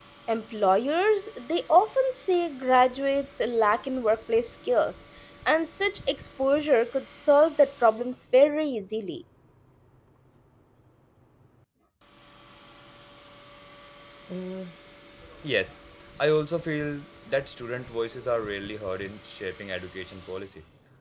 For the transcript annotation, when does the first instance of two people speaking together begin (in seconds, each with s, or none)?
none